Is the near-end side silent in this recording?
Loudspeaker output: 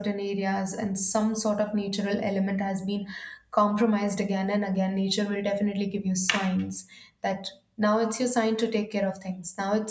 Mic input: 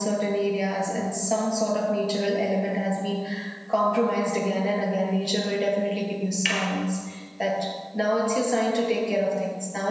Yes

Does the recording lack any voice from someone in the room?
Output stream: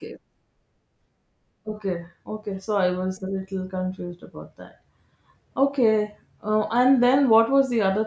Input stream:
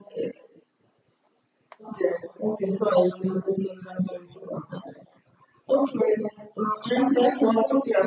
No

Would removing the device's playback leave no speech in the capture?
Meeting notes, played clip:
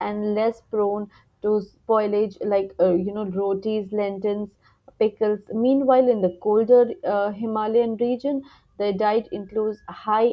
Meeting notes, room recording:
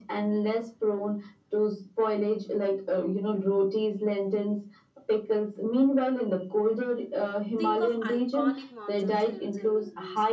No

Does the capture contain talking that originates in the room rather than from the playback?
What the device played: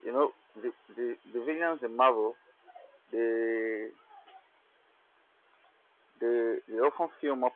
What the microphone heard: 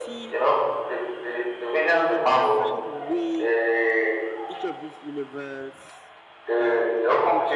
Yes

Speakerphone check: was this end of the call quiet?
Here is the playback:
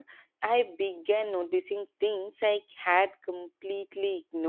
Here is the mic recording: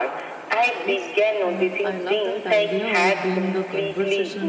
No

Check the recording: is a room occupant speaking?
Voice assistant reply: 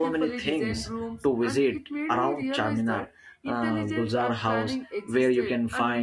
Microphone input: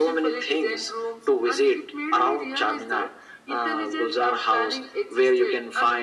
No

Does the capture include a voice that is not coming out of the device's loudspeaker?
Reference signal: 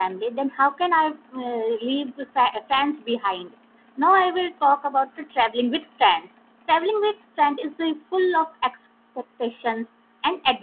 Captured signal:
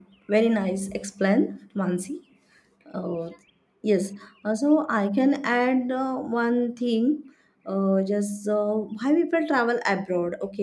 Yes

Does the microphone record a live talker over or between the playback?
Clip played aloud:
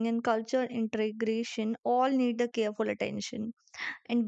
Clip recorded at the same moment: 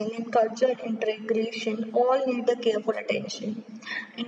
No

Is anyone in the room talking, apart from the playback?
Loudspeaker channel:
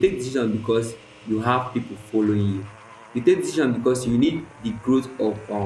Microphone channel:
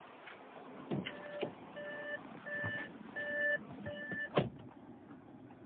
No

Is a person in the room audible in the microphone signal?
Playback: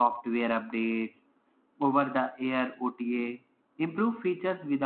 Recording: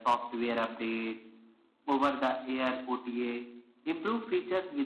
No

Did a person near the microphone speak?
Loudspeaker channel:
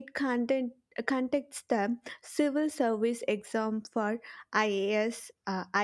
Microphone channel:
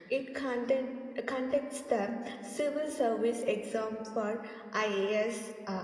No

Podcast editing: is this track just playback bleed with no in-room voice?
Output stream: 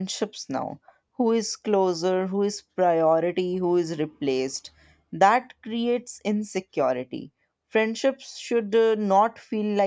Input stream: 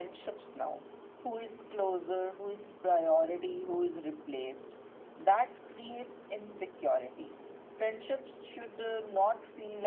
Yes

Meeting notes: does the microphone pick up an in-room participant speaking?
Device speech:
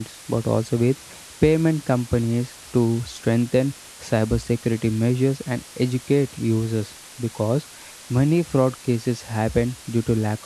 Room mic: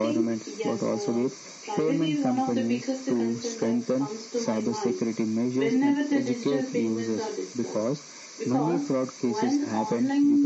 Yes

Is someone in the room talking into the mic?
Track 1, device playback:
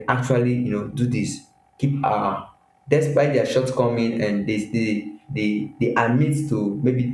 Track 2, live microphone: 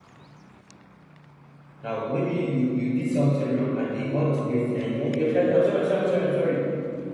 Yes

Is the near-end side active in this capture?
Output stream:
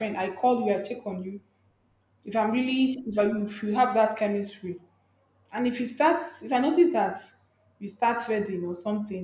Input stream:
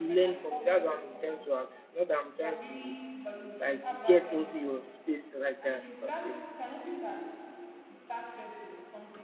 Yes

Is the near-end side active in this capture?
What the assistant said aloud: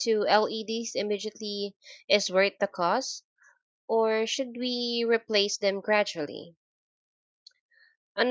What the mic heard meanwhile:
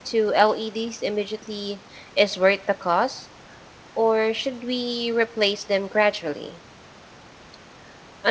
No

